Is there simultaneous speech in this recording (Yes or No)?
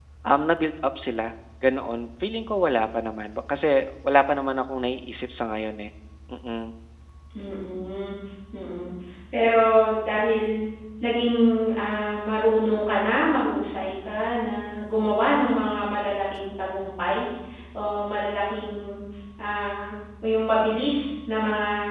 No